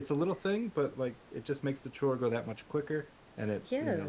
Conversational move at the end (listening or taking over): taking over